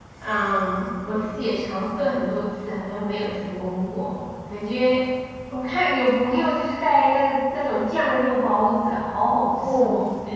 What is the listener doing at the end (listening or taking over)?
taking over